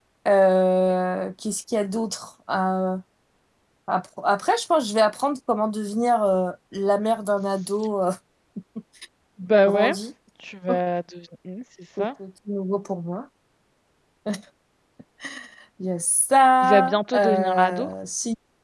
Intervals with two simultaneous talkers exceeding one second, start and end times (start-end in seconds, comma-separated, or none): 16.6-17.9